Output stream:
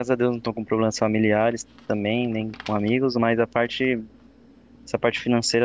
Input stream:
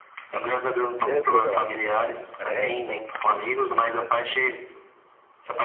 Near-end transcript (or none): você recorreu a alguma, algum crédito, alguma coisa assim?